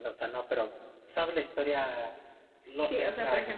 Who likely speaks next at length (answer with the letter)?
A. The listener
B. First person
A